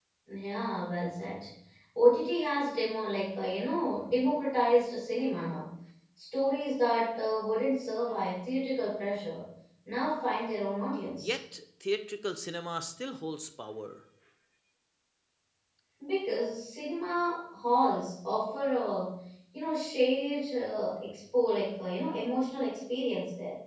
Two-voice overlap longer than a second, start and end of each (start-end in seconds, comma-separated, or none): none